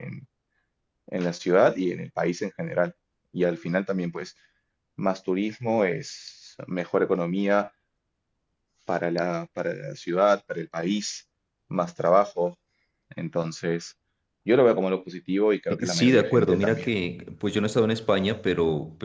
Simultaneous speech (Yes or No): Yes